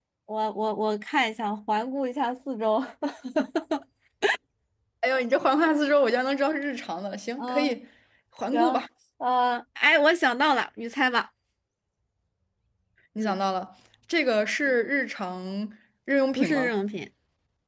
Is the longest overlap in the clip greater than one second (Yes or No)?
No